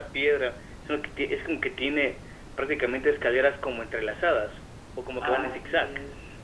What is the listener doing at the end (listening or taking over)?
taking over